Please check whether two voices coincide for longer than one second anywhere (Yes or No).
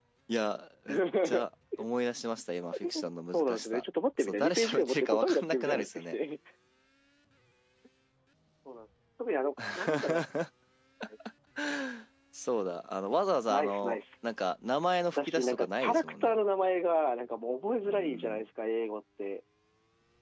Yes